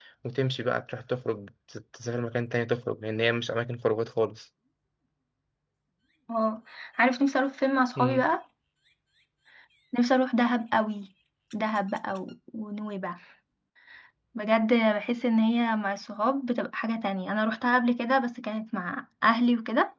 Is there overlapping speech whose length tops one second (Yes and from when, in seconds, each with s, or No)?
No